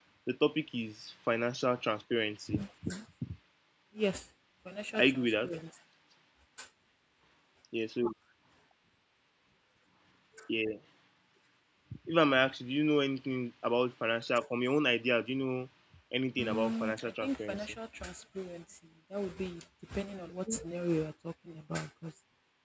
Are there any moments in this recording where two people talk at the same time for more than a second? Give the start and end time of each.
16.4-17.7

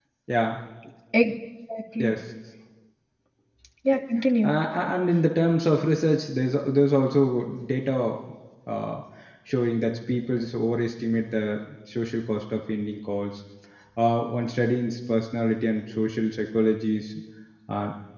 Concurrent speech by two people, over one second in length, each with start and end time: none

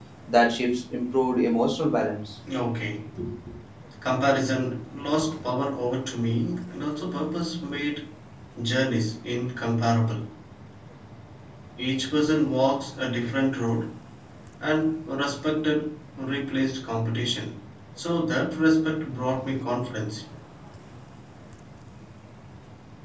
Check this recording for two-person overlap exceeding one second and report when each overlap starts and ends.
none

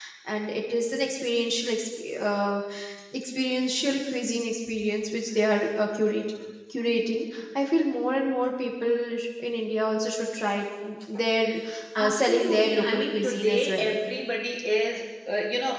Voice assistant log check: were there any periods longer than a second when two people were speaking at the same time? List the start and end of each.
12.0-14.0

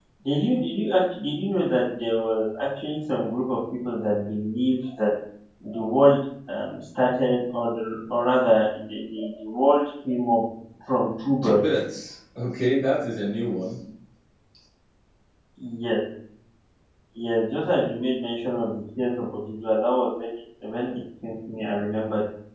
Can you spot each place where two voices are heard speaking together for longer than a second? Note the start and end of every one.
none

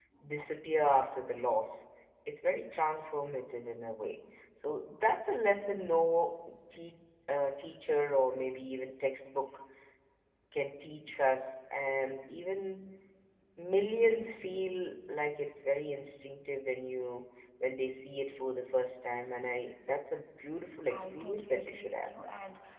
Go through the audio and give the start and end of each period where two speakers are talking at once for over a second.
20.9-22.1

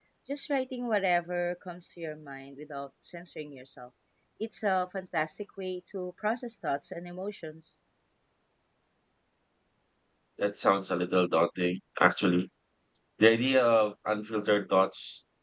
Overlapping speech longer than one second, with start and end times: none

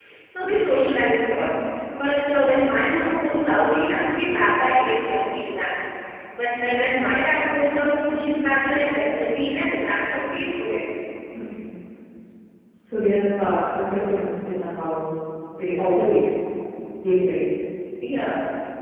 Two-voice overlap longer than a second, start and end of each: none

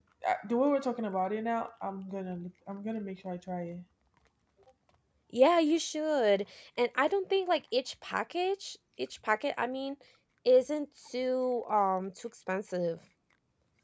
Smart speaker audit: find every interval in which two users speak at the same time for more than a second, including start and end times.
none

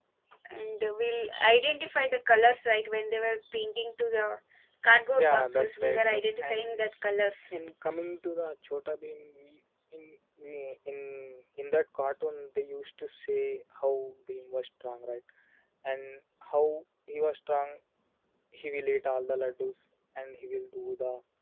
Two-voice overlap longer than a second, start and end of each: 5.2-6.9

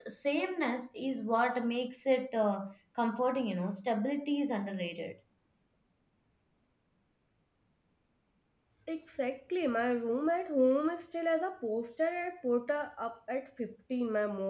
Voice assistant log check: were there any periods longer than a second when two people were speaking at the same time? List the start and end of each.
none

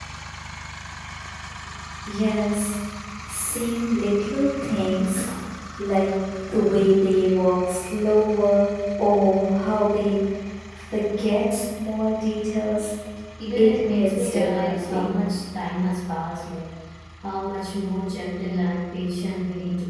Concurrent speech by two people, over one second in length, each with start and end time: 13.6-15.1

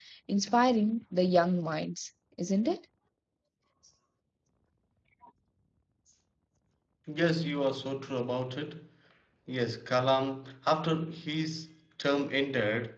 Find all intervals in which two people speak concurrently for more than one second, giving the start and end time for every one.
none

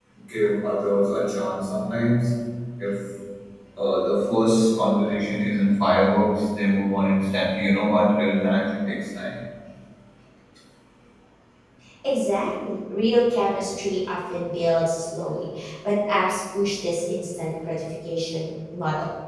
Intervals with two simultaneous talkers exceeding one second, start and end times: none

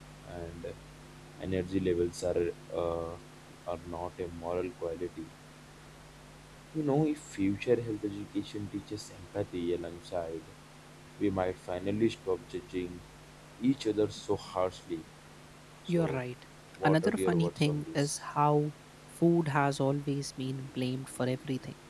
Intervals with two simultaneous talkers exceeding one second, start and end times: 16.8-18.2

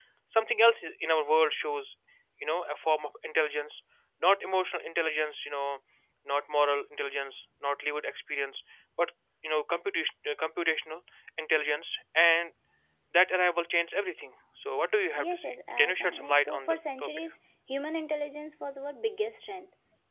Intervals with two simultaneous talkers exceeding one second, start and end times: 15.1-17.1

